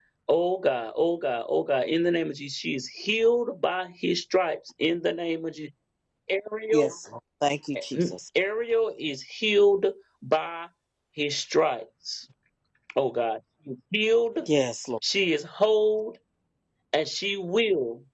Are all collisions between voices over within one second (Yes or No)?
Yes